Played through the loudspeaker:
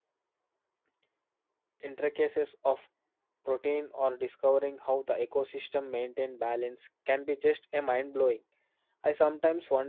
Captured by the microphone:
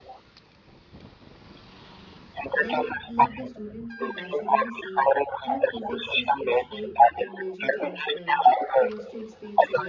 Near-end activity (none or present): present